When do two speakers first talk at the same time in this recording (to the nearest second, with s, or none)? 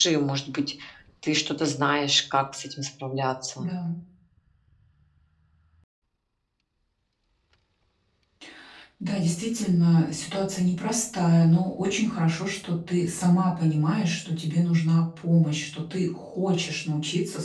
none